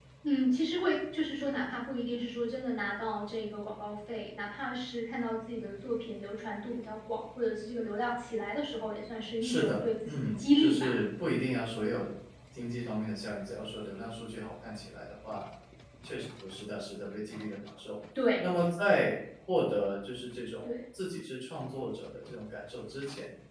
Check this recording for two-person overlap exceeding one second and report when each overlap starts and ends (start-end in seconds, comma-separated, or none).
9.4-10.9